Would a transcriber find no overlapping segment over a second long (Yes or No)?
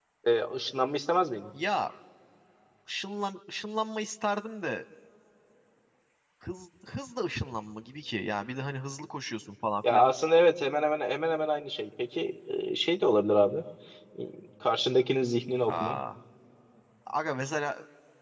Yes